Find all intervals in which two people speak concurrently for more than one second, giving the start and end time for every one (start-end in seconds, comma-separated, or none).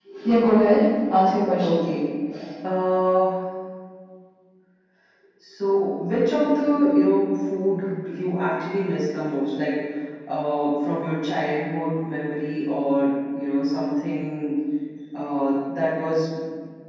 none